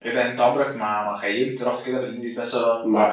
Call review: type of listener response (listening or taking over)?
listening